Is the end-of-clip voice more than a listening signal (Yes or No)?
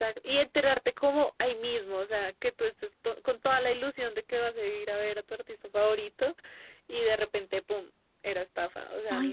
Yes